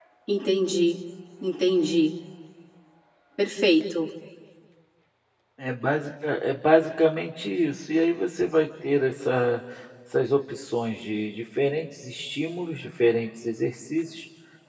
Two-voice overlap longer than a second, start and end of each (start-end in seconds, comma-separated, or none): none